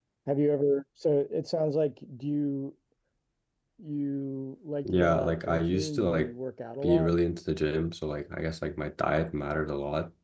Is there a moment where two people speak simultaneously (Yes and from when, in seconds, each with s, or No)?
Yes, from 4.8 s